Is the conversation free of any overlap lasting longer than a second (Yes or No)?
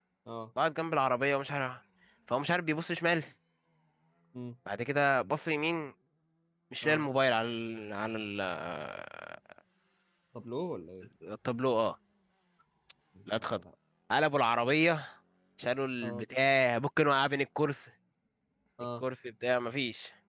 Yes